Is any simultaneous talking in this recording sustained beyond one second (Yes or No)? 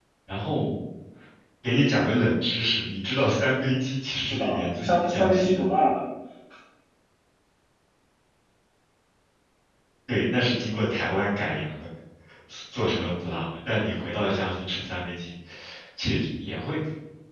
Yes